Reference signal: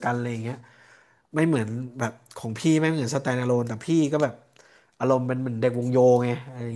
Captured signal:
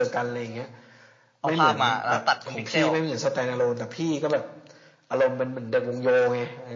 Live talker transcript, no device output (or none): เอาภาพมาแล้วตัดเป็นพิกเซล